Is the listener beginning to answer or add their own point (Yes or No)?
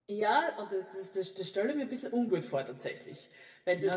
Yes